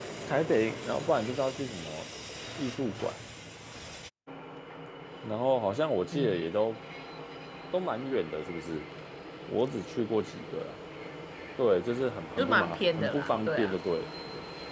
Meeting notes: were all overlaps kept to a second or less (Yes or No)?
No